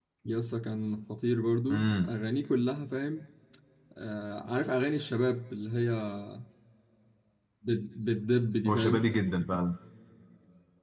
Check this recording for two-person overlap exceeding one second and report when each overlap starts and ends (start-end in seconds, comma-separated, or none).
none